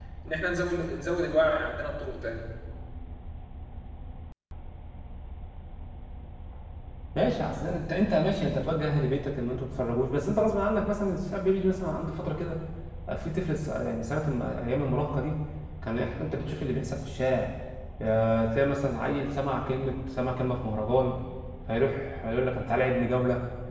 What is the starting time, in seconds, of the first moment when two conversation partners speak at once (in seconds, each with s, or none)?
none